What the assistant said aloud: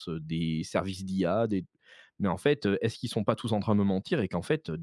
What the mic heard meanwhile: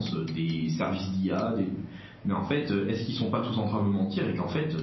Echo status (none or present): present